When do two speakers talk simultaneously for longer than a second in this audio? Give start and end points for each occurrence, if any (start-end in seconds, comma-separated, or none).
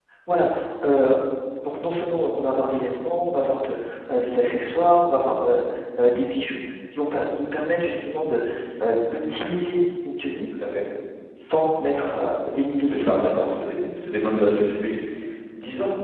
none